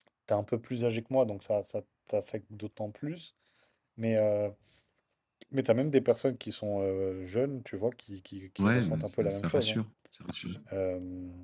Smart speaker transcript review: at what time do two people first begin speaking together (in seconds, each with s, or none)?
8.6 s